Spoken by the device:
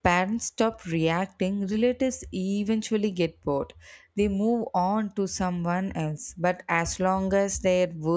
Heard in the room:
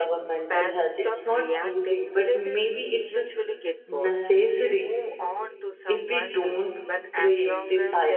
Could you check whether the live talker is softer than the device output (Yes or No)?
No